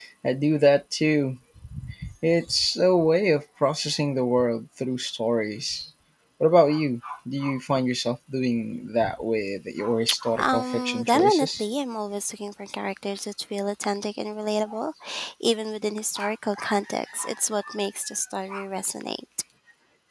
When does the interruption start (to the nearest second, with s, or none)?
10 s